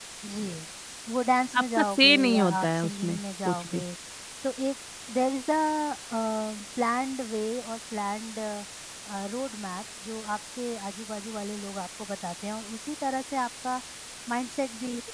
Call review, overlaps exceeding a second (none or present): present